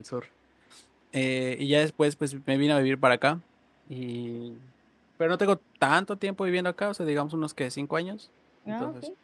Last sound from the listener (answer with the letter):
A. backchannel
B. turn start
B